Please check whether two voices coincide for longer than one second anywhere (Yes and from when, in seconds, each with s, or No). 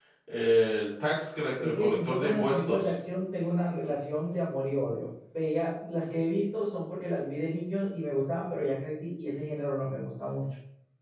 Yes, from 1.6 s